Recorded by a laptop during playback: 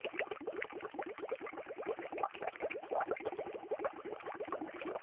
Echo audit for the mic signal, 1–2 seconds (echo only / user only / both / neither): neither